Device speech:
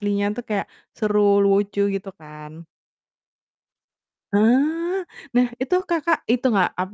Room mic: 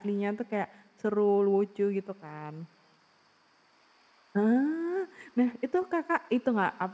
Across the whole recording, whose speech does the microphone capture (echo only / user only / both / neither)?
echo only